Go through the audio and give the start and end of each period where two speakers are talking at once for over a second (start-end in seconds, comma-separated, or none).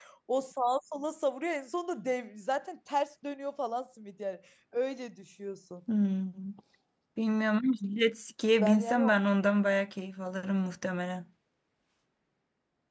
none